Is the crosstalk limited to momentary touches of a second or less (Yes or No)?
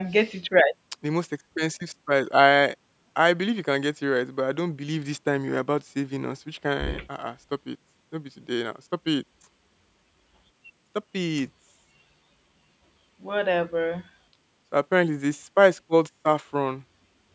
Yes